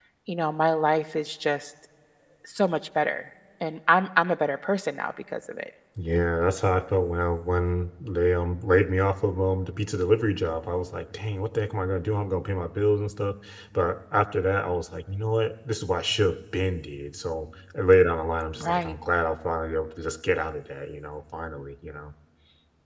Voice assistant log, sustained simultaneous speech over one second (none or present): none